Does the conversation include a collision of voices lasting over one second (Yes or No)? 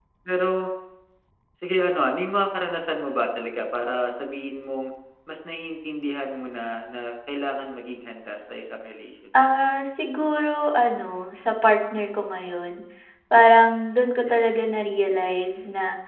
No